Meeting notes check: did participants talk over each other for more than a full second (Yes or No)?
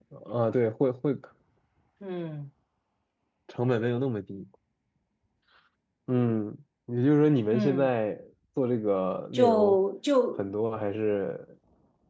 No